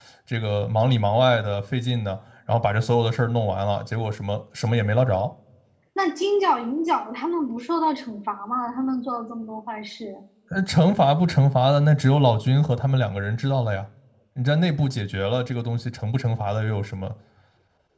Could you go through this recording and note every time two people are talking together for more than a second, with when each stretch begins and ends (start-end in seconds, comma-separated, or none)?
none